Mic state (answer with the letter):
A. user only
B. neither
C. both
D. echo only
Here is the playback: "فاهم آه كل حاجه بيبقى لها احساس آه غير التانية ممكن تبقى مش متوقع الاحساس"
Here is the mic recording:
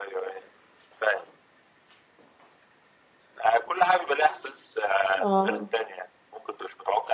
C